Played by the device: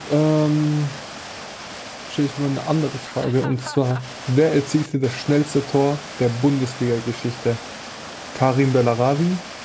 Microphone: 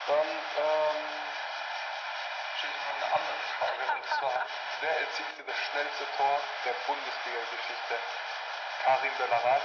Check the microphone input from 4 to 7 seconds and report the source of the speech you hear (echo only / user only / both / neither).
echo only